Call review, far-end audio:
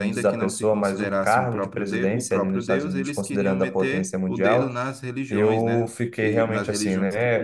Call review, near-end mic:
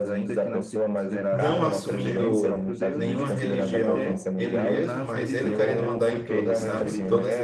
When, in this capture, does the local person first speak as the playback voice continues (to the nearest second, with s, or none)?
1 s